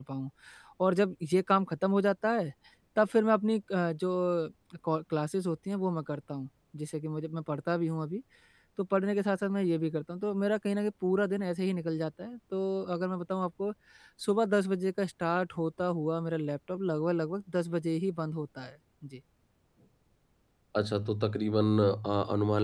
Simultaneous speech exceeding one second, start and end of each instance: none

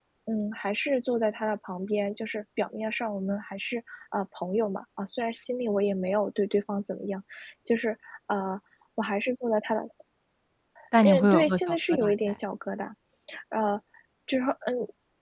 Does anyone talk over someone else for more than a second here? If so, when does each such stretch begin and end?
11.0-12.4

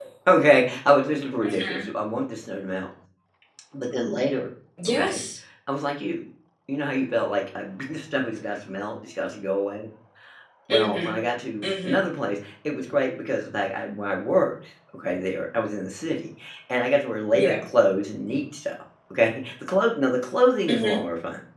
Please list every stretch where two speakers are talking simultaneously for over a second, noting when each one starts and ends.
none

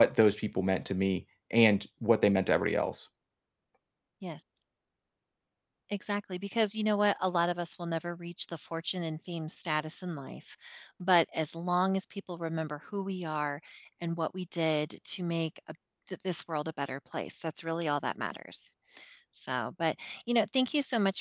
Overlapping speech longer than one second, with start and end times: none

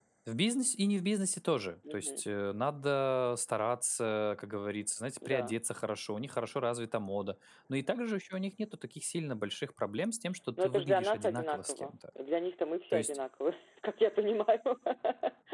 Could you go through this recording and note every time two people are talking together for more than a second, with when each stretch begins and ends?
10.6-11.9

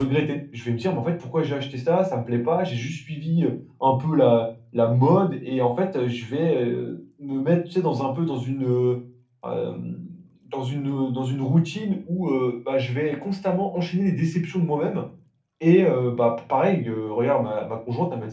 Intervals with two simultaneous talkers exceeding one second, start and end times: none

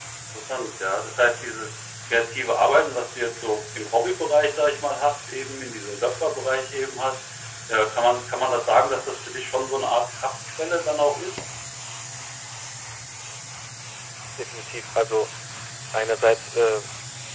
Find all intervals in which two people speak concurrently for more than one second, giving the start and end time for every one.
none

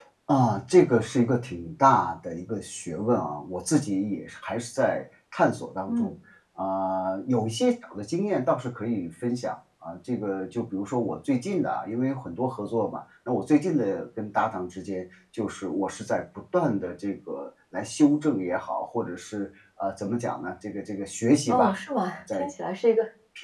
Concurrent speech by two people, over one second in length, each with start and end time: none

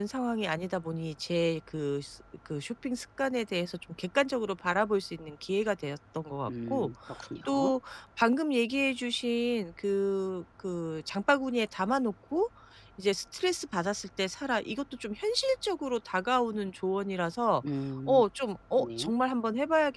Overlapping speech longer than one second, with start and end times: none

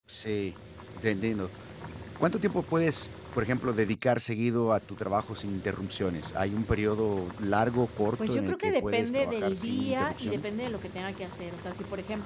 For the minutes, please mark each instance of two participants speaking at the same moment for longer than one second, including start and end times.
8.3-10.4

